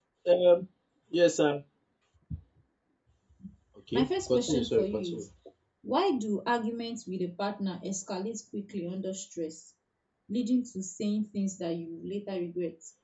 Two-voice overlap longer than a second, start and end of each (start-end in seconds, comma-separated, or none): 3.9-5.2